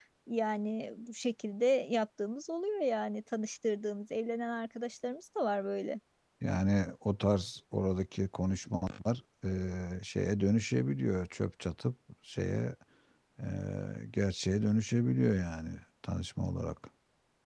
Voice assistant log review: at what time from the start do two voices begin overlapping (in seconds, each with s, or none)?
none